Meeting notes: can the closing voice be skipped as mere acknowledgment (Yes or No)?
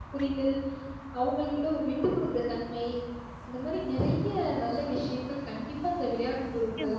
No